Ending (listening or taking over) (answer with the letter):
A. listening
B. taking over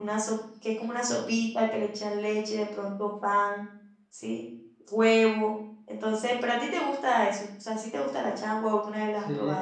B